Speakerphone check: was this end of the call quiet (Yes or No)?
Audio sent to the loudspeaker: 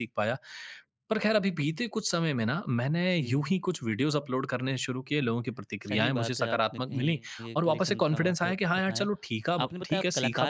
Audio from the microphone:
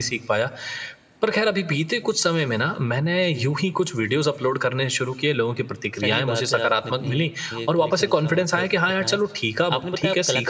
Yes